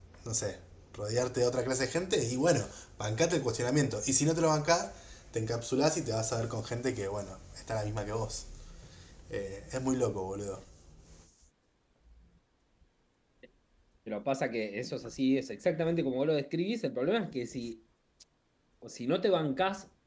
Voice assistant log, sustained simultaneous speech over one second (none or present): none